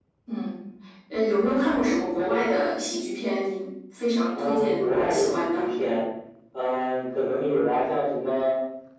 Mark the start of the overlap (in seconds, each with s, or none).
4.3 s